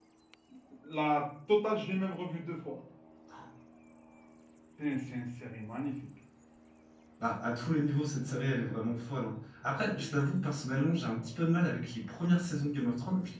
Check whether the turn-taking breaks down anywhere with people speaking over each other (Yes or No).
No